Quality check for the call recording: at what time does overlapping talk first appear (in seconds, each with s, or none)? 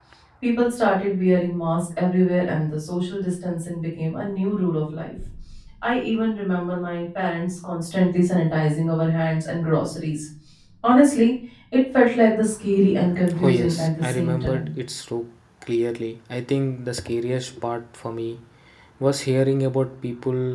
13.4 s